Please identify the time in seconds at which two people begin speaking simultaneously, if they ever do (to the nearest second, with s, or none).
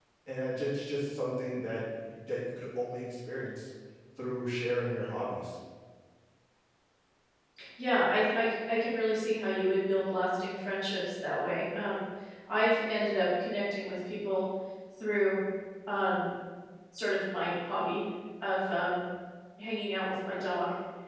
none